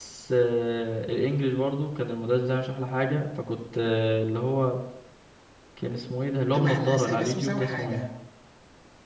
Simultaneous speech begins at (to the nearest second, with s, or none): 7 s